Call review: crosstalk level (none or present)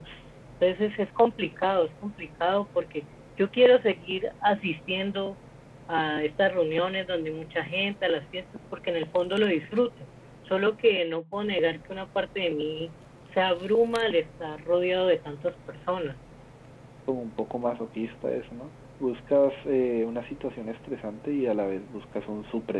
none